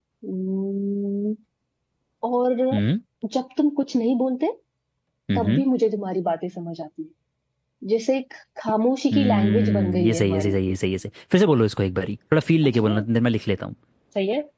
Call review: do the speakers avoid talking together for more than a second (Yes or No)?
No